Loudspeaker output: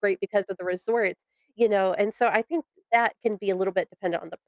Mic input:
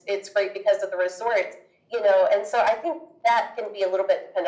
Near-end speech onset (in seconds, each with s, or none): none